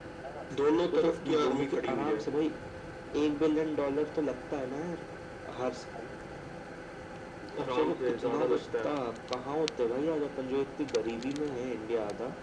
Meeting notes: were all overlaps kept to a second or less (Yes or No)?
No